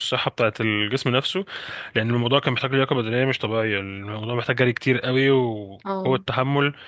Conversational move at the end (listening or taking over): listening